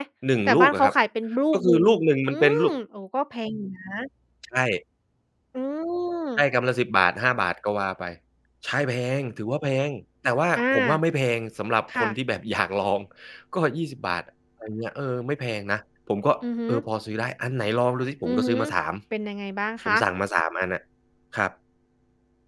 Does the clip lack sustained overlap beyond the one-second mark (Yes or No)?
Yes